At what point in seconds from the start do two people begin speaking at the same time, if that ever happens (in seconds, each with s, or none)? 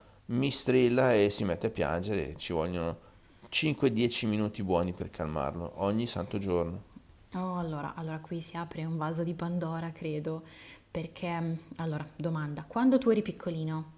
none